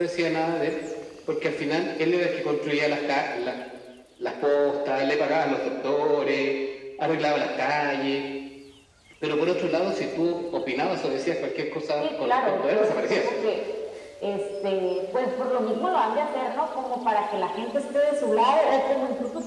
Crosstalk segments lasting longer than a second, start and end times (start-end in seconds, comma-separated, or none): 12.0-13.3